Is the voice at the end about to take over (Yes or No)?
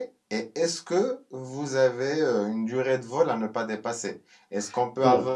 No